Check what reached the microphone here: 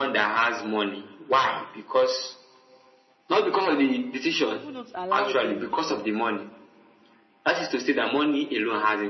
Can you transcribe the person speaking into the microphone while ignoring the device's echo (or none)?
people don't allow them to